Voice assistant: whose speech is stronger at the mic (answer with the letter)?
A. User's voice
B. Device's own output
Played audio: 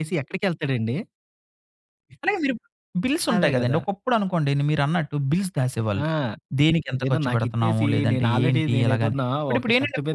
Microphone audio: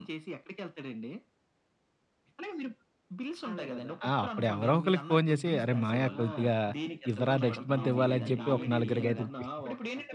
A